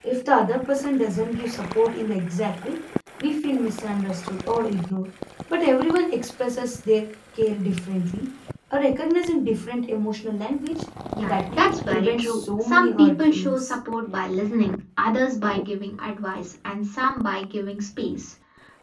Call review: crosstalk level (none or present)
present